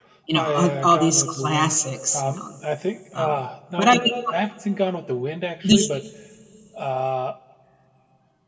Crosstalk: present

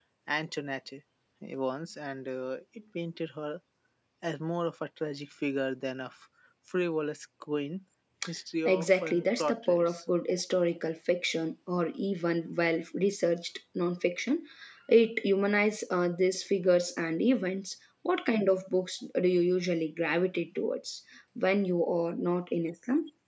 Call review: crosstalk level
present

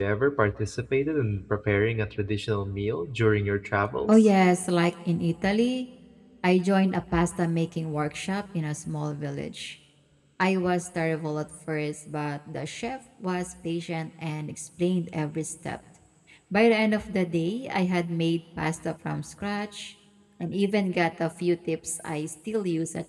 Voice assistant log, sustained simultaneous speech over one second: none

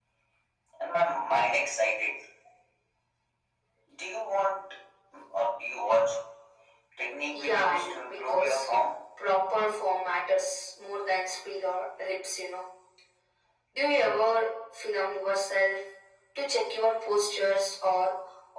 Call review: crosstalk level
present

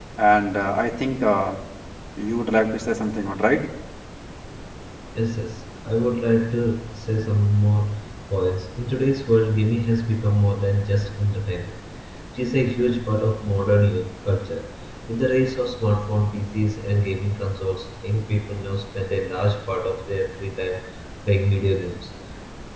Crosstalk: none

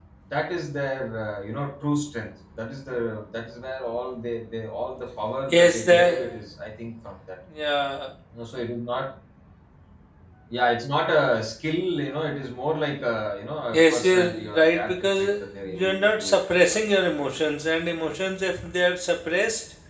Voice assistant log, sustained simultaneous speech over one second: present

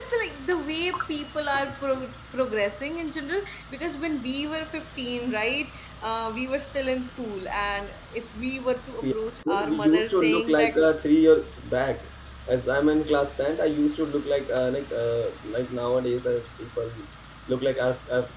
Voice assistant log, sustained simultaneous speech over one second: present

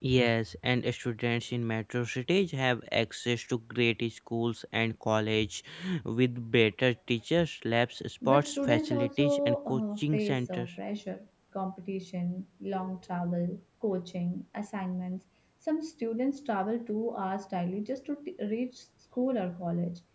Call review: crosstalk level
present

